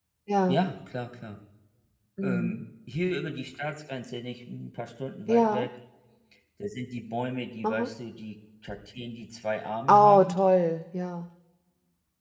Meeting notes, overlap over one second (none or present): none